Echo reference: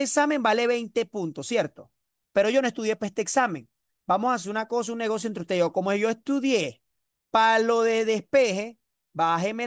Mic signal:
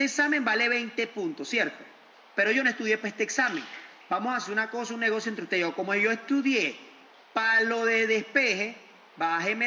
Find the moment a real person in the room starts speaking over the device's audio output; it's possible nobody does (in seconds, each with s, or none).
none